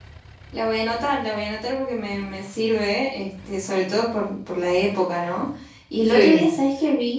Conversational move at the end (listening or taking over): listening